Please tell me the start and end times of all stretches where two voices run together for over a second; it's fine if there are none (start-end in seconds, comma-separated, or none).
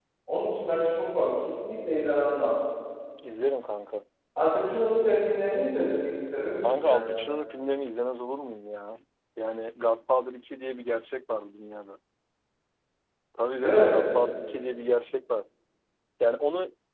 none